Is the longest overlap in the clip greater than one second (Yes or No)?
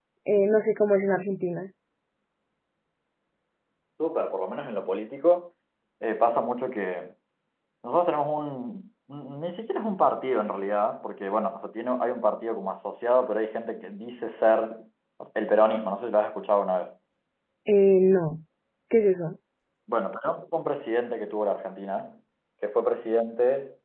No